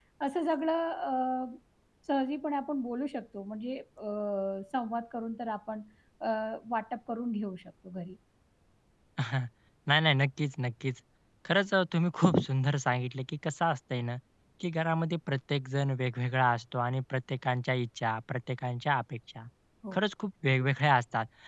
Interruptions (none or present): none